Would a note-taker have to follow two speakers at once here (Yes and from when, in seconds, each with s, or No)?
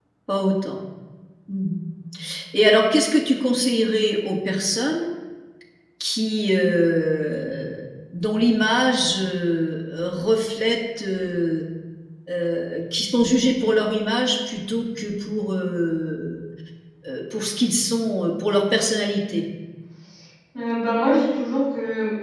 No